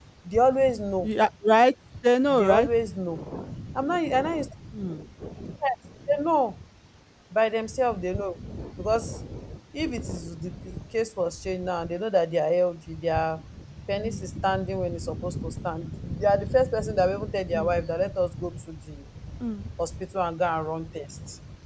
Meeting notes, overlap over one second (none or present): none